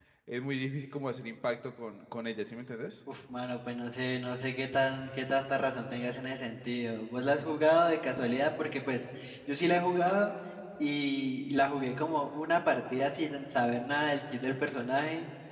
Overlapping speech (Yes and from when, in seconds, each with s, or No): No